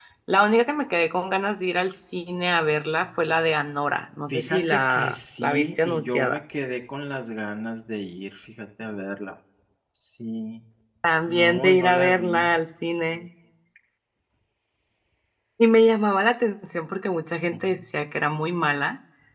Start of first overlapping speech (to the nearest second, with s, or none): 4 s